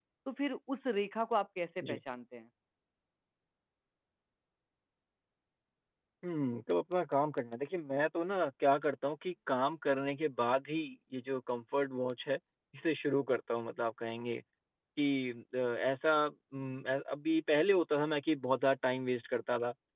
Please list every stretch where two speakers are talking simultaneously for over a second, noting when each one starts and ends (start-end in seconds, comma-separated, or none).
none